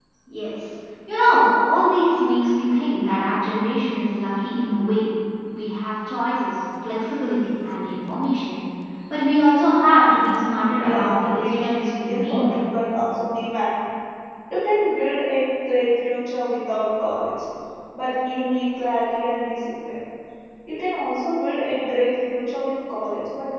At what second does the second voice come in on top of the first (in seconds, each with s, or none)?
10.8 s